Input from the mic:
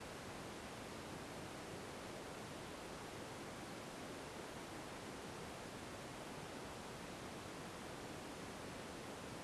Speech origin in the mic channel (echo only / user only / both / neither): neither